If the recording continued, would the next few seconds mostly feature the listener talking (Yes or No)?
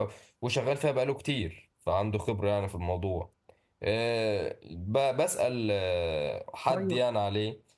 No